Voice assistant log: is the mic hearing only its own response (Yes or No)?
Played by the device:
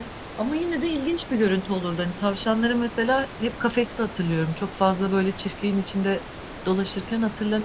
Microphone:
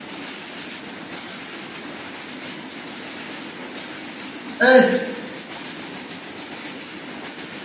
No